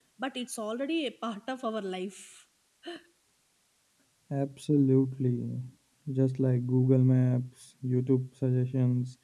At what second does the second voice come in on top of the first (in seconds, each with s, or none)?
none